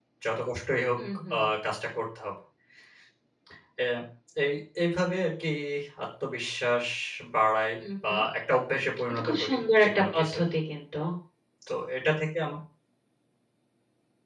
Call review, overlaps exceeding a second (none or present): present